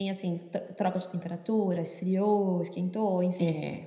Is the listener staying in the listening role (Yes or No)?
No